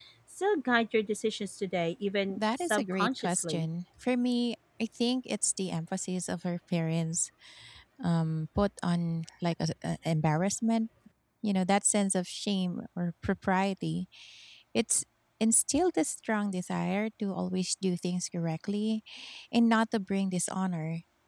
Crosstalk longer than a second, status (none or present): present